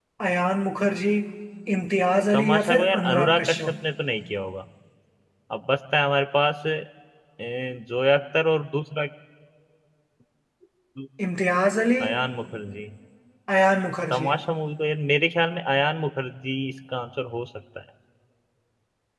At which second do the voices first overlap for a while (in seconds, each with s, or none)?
2.3 s